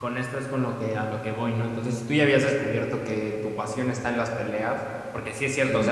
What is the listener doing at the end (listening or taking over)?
listening